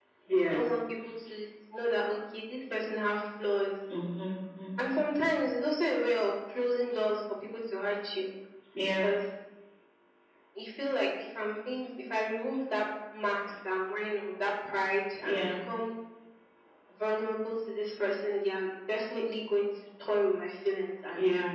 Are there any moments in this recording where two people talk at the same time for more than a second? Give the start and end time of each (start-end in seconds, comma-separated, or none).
none